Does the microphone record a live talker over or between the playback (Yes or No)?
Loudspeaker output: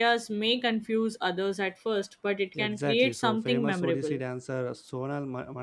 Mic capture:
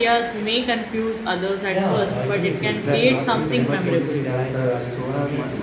Yes